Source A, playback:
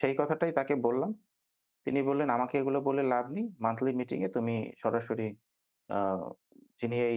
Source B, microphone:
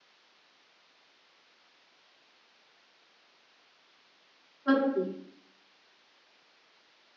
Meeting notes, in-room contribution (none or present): present